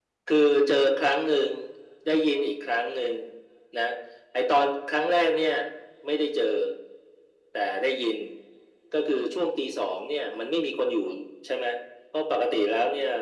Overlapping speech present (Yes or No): No